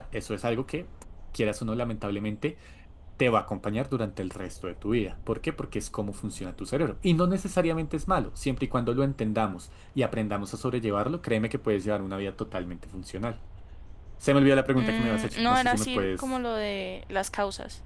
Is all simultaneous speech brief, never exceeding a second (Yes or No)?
No